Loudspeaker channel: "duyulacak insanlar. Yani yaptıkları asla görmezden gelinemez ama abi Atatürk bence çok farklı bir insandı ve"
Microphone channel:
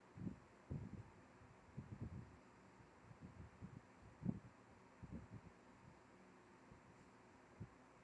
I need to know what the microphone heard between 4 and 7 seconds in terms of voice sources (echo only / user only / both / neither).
neither